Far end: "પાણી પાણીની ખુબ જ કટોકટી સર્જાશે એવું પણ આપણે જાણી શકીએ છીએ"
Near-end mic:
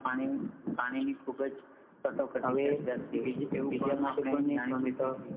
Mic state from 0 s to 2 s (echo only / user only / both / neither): echo only